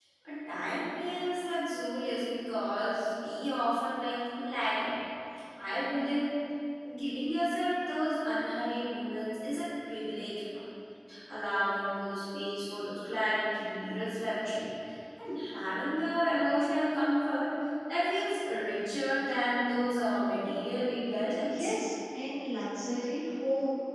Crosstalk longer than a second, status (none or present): none